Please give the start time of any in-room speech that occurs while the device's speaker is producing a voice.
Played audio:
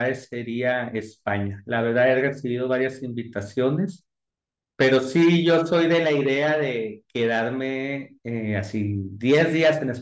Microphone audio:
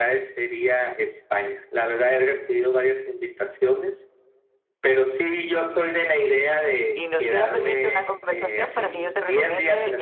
7 s

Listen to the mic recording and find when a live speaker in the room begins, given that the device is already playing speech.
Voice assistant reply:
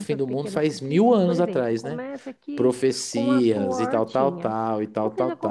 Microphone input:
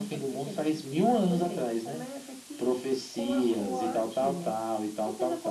none

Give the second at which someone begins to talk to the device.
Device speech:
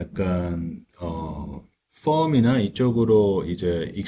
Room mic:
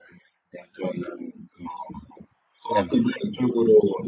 3 s

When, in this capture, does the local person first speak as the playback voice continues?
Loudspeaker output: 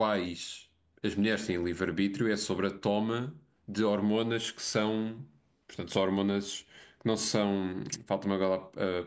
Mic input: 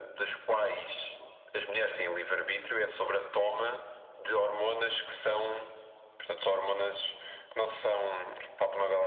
none

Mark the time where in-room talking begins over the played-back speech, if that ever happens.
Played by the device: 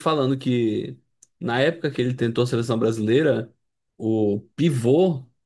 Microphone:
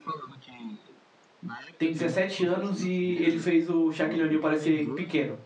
2 s

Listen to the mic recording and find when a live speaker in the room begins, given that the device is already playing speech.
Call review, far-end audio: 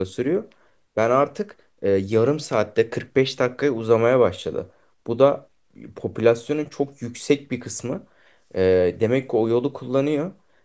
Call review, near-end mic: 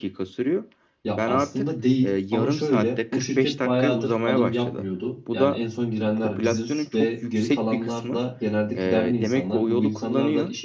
1 s

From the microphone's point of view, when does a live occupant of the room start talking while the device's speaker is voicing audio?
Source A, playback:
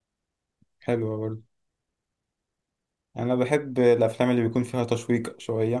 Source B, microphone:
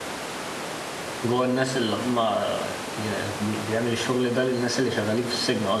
1 s

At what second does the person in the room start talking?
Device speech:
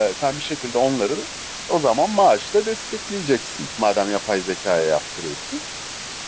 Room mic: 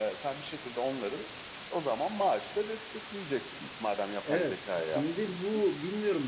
4 s

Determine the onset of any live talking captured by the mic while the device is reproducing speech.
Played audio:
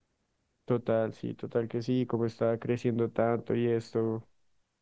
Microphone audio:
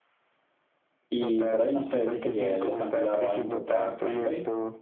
1 s

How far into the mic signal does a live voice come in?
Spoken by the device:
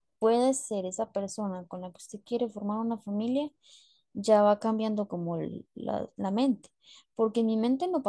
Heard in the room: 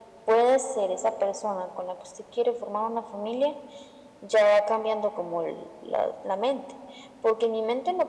none

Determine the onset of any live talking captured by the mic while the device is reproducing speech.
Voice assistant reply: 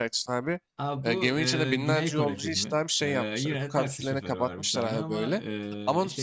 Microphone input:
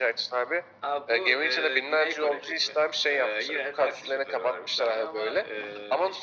none

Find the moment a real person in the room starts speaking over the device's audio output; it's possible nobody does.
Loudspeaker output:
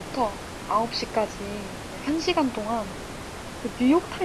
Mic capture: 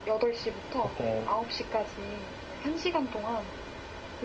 1 s

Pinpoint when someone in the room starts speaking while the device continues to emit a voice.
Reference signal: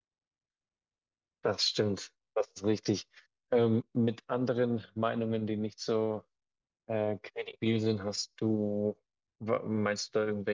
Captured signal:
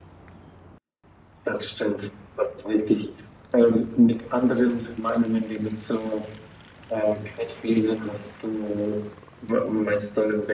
none

